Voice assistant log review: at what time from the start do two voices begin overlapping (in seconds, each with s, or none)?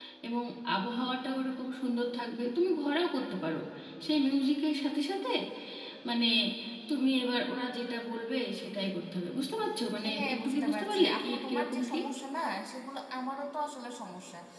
10.0 s